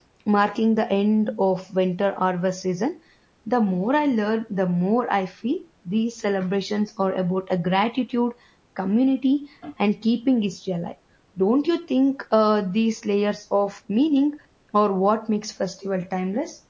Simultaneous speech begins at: none

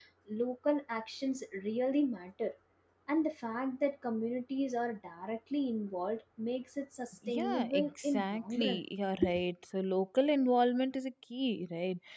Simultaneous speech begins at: 7.2 s

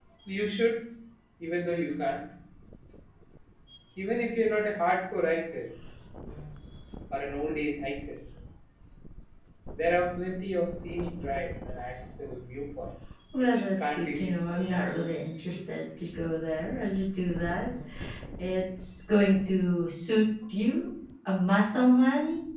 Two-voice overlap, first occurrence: 13.3 s

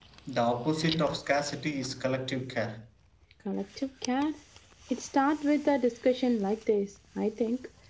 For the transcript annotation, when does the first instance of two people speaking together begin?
none

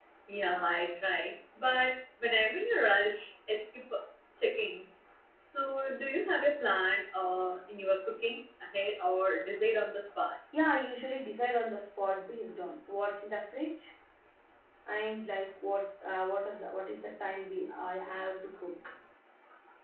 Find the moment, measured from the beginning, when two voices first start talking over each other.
none

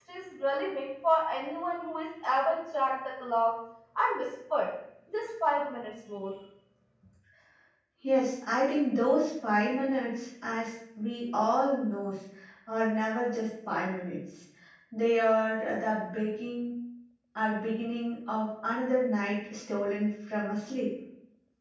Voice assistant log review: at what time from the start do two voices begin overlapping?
none

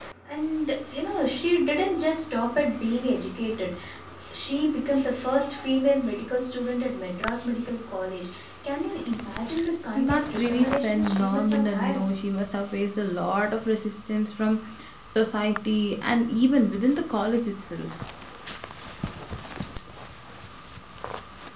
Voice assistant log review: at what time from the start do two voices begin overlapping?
10.0 s

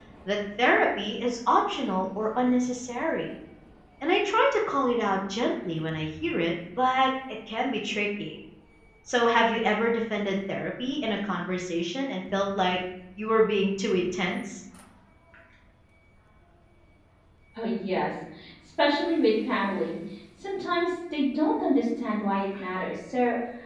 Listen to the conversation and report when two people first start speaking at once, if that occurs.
none

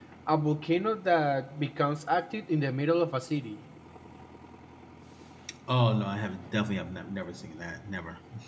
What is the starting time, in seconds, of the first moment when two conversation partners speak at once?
none

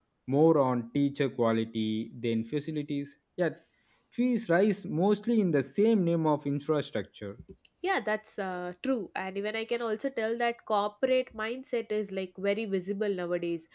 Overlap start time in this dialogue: none

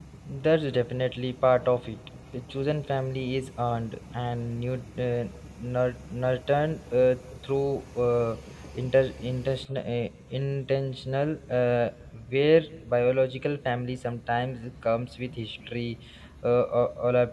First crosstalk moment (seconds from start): none

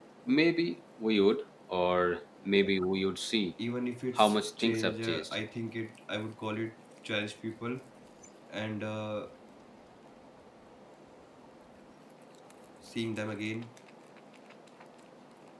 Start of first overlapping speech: 4.2 s

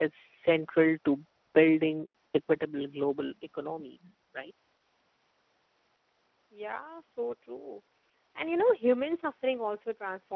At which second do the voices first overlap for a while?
none

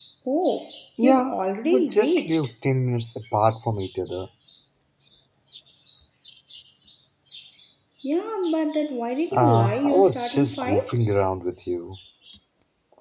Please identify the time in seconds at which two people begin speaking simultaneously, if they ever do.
1.0 s

